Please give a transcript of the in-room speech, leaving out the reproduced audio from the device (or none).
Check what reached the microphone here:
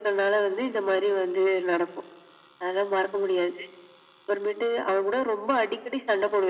none